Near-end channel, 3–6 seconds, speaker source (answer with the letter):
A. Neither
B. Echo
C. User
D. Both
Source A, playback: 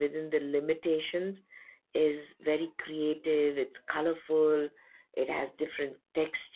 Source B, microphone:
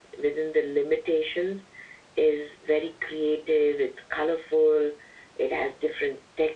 B